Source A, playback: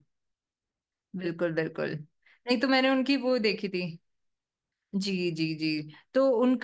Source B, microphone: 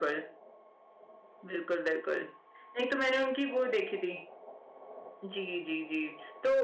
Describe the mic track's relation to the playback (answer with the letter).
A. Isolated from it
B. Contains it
B